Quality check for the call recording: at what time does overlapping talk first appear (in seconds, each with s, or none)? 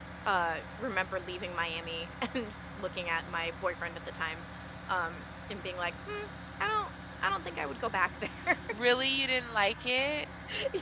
none